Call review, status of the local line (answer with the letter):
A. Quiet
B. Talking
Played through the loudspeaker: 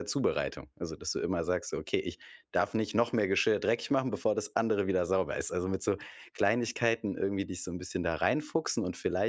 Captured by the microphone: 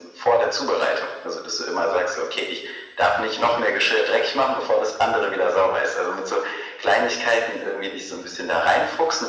A